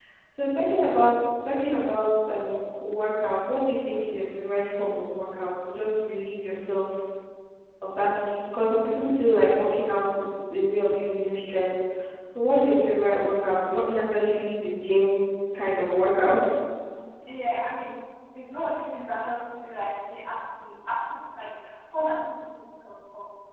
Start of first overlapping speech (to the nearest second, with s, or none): none